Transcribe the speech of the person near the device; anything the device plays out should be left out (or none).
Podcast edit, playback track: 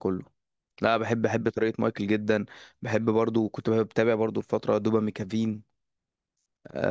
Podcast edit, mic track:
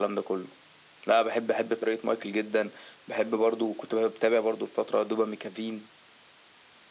none